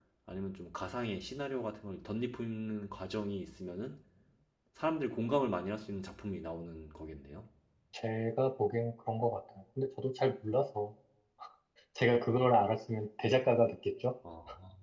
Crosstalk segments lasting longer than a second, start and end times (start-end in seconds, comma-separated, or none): none